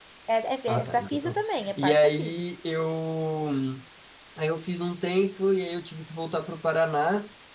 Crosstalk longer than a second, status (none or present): present